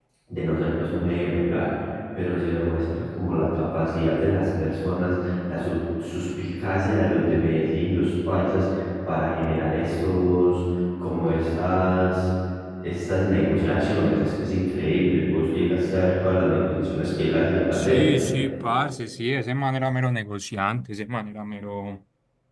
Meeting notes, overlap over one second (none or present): none